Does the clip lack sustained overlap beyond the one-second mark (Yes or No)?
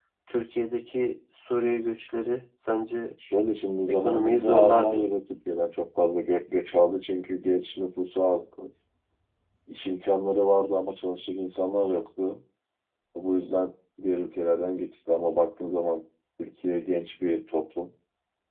No